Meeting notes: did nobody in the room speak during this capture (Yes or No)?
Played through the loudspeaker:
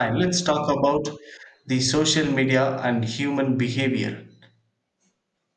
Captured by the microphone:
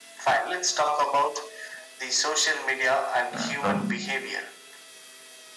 No